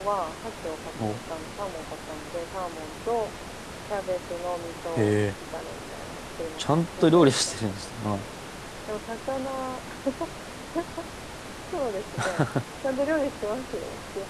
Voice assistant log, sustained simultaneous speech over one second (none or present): present